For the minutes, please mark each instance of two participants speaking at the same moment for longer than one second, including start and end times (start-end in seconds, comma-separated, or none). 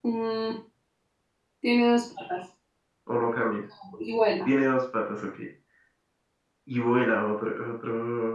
none